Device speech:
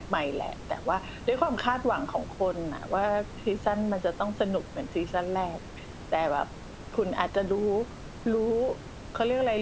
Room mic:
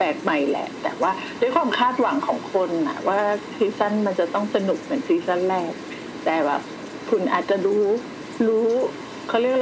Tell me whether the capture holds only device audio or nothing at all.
Yes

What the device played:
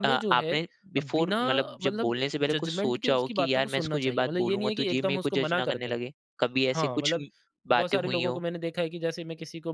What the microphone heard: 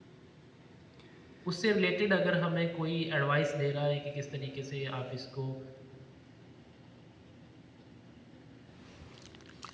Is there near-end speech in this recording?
Yes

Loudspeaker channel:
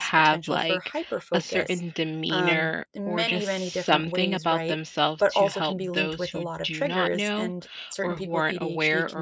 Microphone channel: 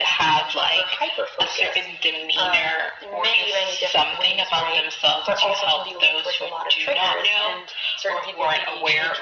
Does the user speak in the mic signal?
No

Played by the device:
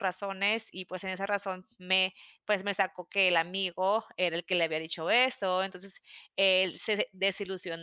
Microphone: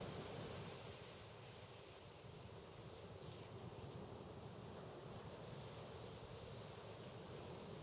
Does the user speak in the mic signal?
No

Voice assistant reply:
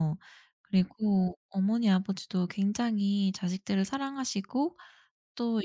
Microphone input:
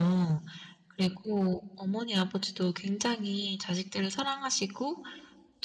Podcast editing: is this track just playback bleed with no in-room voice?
Yes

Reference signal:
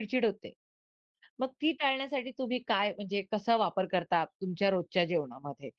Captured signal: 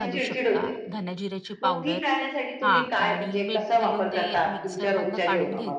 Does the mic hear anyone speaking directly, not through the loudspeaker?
Yes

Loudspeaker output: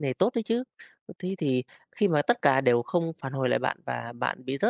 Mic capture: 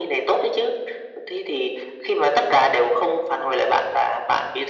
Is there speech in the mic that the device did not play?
No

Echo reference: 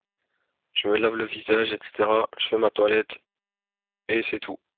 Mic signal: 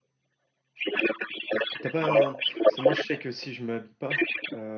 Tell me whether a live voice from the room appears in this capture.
Yes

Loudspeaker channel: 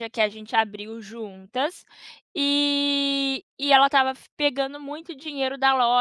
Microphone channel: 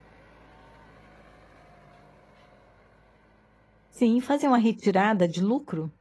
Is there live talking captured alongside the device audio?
Yes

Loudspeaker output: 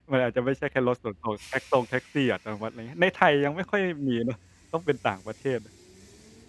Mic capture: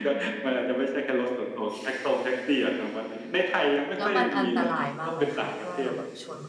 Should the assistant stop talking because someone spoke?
Yes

